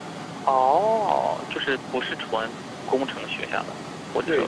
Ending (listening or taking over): taking over